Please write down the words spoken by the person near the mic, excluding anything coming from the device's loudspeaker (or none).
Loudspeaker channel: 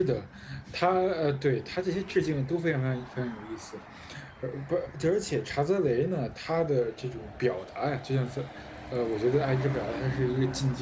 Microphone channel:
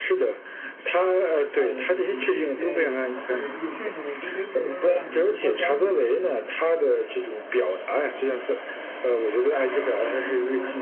呃，就是这些有什么特别之处，甚至我觉得对于普通观众来讲，可能都不会关注这些细节。